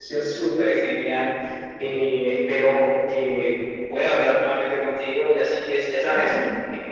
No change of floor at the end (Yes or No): Yes